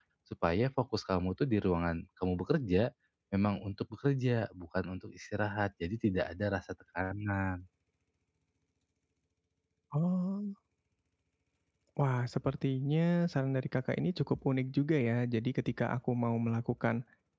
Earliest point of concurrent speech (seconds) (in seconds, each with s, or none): none